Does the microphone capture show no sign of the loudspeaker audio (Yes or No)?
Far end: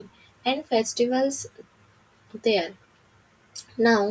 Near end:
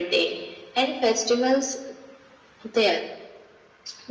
No